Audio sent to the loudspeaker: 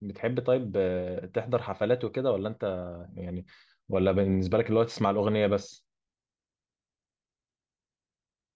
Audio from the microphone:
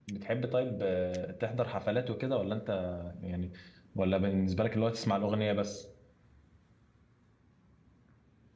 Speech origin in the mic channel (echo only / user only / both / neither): echo only